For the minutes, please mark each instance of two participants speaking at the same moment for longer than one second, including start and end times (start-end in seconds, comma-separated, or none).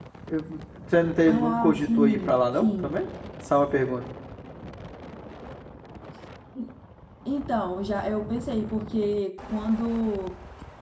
1.2-3.0